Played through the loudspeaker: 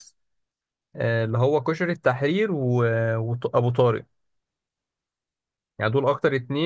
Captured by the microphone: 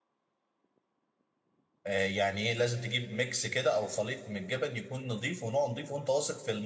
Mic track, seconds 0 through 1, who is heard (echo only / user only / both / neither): neither